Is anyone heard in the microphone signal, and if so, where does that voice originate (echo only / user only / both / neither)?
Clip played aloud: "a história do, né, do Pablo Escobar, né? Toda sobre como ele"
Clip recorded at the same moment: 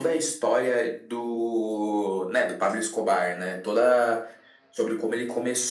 echo only